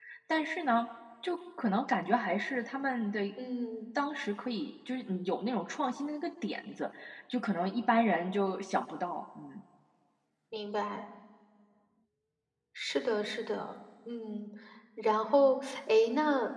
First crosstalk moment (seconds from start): none

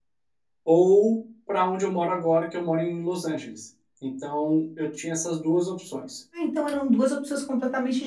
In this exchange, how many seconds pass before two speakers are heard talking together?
none

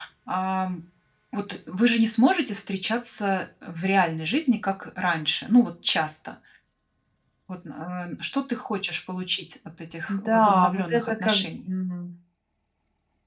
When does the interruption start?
10.1 s

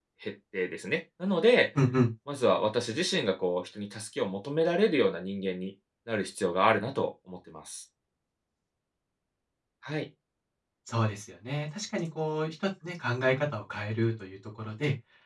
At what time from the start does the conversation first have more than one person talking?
none

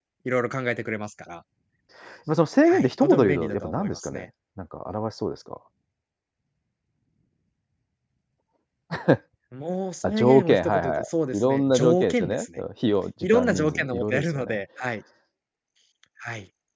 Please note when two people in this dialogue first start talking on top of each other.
2.7 s

